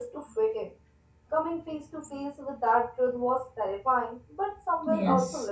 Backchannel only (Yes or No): No